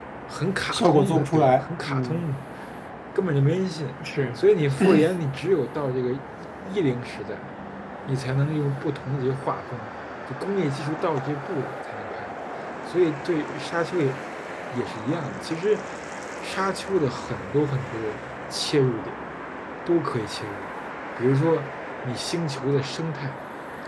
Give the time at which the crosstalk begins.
0.7 s

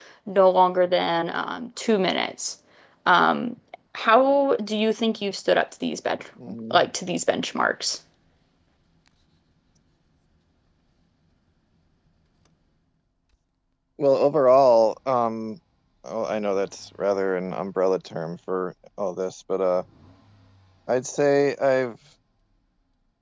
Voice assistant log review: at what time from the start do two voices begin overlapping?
none

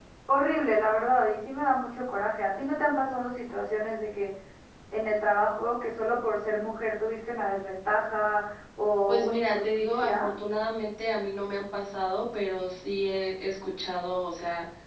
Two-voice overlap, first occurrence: 9.1 s

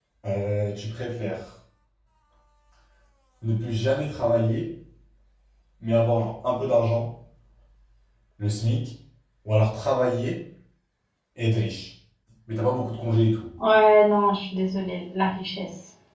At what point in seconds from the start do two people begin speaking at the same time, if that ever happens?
none

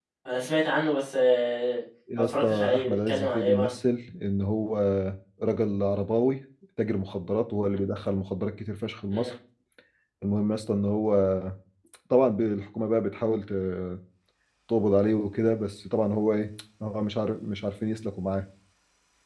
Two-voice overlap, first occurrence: 2.1 s

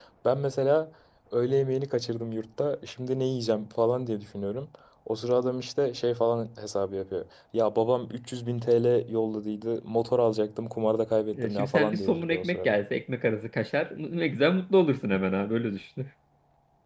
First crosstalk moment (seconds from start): 11.3 s

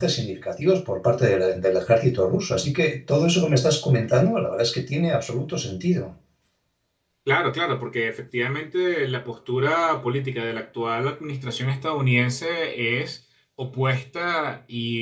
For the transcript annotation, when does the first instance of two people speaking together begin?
none

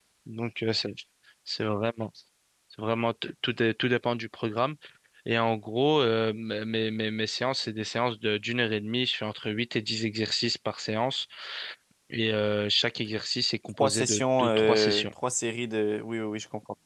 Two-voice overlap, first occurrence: 13.8 s

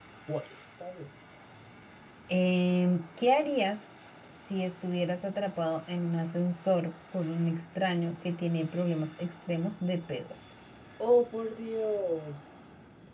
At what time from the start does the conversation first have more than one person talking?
none

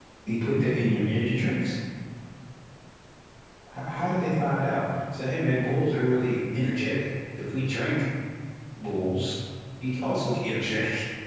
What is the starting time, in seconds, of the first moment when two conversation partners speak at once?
none

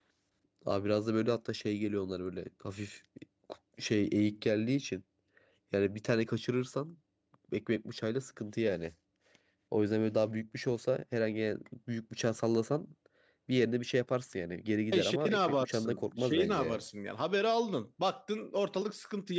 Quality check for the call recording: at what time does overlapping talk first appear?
14.9 s

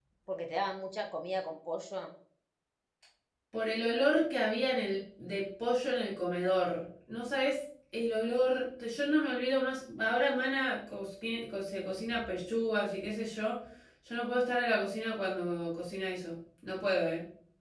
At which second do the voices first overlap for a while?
none

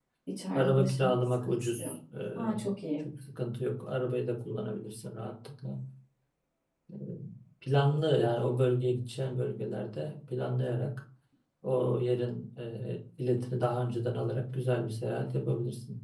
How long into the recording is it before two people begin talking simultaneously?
0.6 s

